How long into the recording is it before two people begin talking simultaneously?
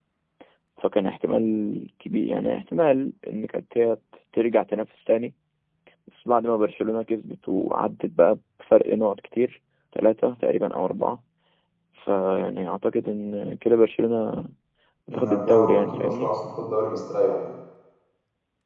15.1 s

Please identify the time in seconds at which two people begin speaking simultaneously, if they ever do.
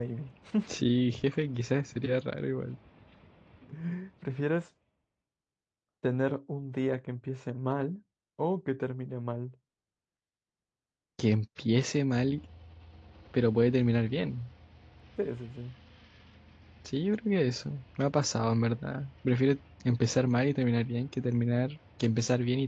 none

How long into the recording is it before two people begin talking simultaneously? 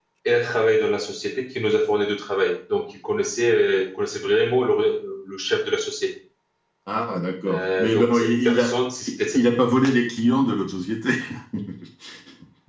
7.5 s

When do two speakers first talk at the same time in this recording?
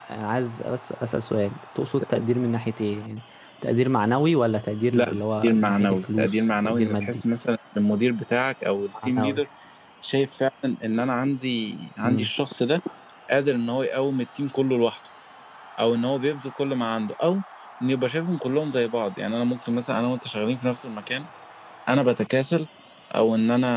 4.9 s

